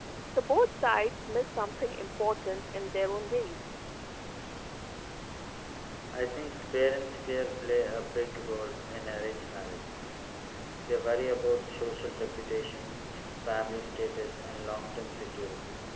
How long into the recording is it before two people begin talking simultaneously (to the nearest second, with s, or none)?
none